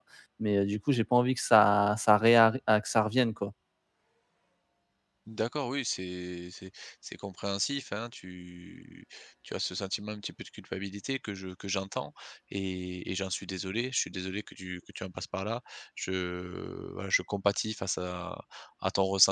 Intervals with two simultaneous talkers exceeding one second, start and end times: none

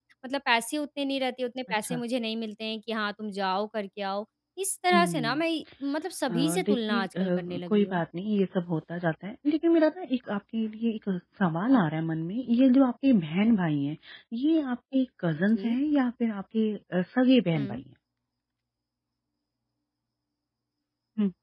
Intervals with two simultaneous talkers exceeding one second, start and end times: 6.3-8.0

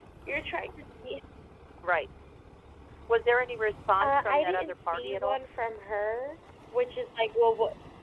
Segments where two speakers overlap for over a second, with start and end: 4.0-5.4

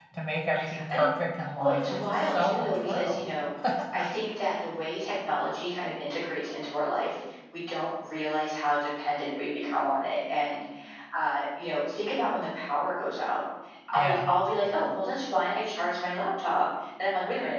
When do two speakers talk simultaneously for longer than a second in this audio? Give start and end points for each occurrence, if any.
1.6-3.3

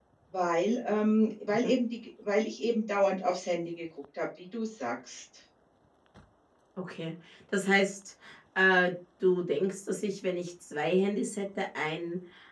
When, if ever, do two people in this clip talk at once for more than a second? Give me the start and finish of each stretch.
none

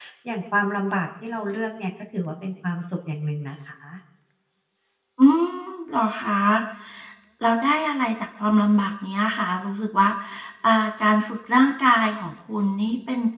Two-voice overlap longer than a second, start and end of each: none

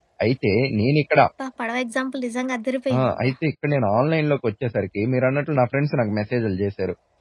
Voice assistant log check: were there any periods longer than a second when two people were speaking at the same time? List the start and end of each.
none

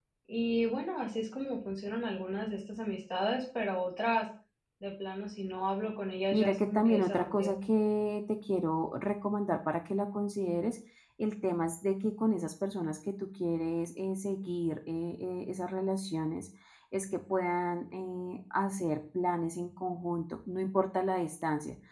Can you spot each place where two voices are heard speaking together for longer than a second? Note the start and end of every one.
6.3-7.5

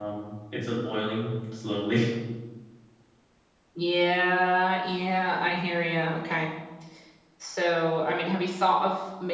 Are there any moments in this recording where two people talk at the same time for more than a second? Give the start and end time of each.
none

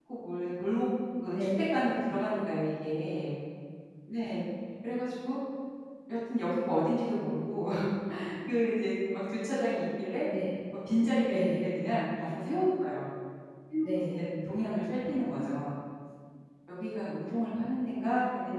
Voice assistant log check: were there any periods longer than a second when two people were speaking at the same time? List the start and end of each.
none

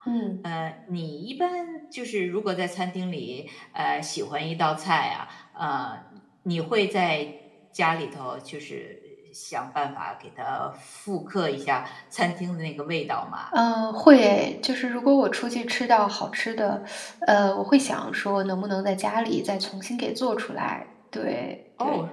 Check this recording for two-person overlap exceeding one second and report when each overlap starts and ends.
none

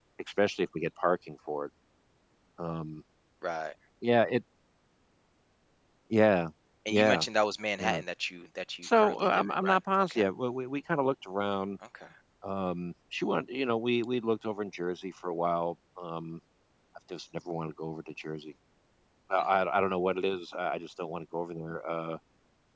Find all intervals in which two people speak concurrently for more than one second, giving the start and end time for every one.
8.8-10.2

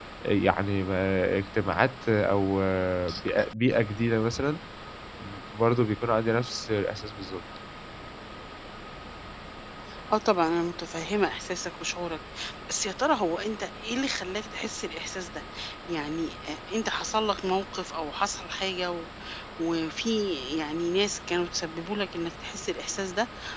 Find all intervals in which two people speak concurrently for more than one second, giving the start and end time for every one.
none

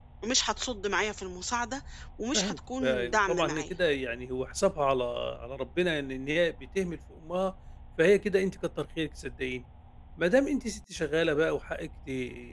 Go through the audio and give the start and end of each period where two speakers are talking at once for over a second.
2.3-3.7

